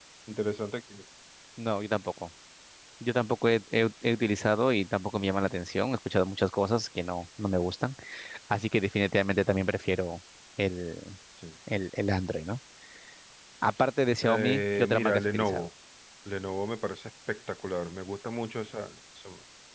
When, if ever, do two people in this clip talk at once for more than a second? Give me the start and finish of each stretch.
14.2-15.7

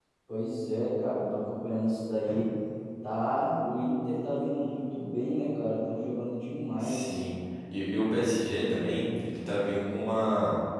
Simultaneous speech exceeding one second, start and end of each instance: none

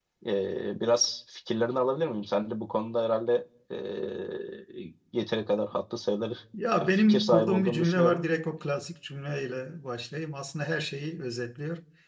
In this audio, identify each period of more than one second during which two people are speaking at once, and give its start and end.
6.7-8.2

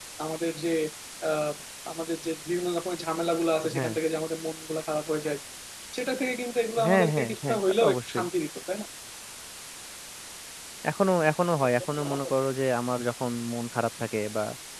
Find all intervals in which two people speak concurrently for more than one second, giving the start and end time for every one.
6.8-8.2

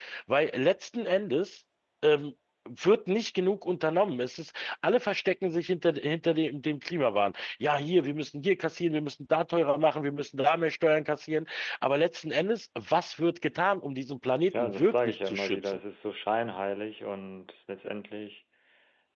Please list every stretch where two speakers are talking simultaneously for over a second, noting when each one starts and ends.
14.6-15.8

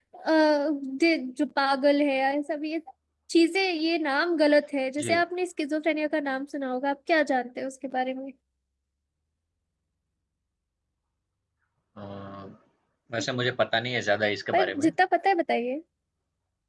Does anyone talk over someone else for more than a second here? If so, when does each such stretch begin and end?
none

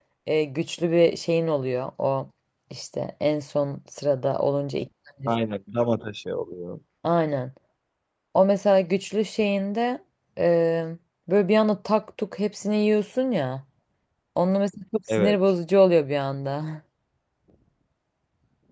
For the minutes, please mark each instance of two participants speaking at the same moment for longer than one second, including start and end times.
none

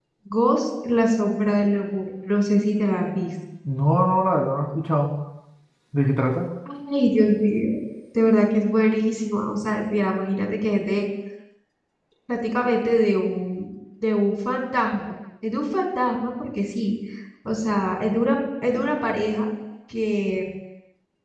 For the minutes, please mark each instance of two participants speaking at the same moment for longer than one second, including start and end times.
none

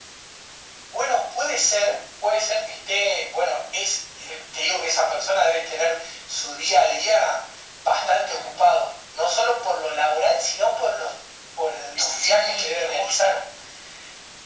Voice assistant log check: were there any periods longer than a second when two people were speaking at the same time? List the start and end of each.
12.0-13.4

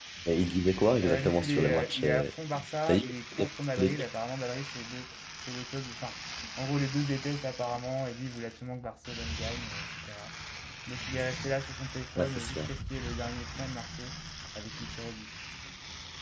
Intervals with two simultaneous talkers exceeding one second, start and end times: 1.0-2.3

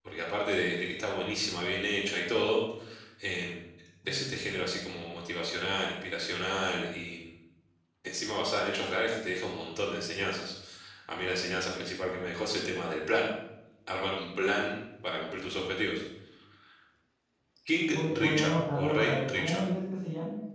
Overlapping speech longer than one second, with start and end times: 17.9-19.6

